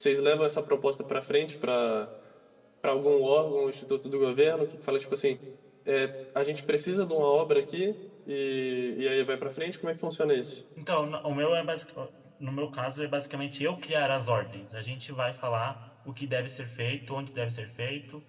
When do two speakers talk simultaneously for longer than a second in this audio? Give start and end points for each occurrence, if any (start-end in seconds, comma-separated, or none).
none